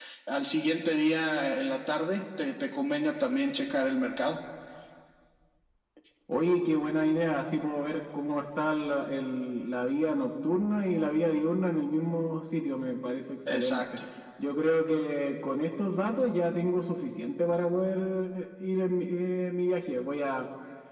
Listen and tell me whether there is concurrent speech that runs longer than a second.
No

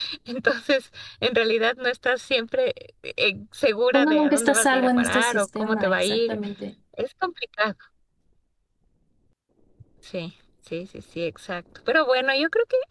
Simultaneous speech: Yes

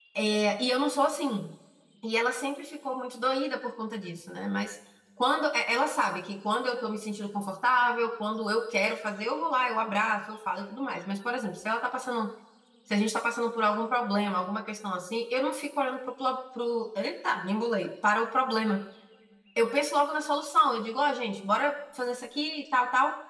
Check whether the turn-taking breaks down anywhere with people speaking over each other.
No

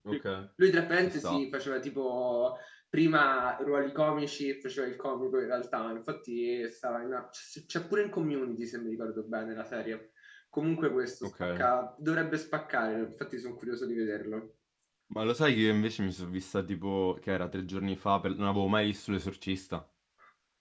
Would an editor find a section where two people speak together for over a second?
No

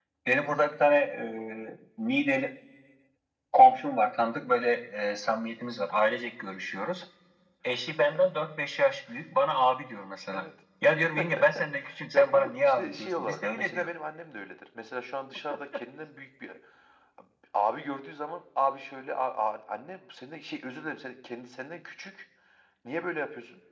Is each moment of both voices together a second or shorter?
No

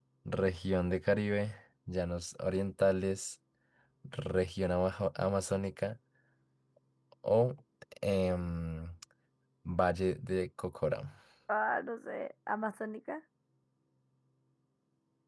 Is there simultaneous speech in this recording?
No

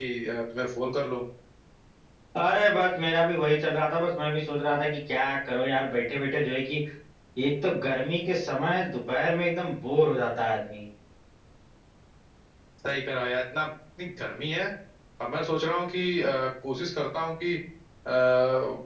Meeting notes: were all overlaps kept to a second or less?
Yes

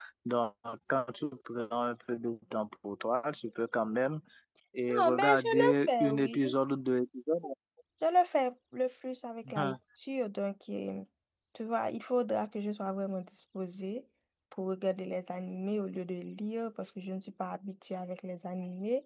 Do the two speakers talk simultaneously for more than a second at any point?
Yes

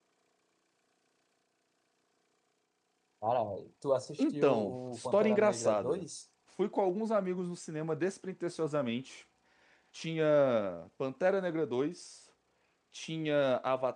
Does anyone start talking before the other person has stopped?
Yes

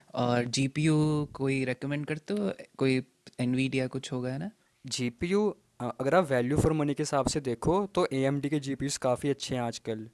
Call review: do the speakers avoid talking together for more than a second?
Yes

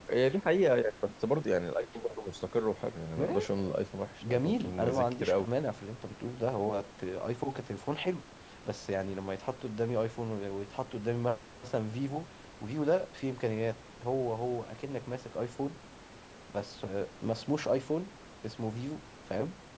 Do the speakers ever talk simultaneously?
Yes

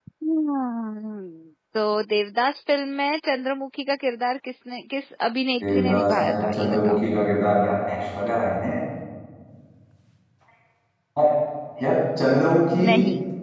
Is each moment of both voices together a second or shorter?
No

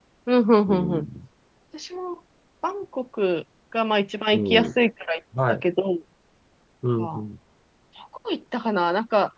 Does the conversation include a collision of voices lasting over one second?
No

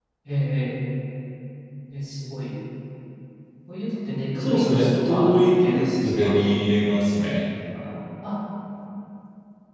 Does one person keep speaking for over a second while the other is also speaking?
Yes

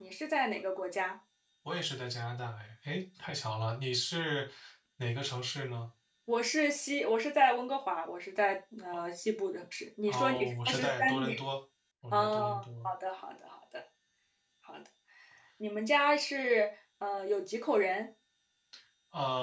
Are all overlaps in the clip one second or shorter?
No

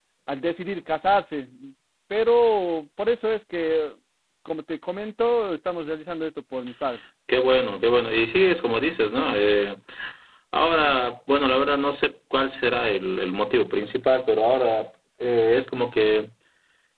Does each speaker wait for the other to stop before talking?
Yes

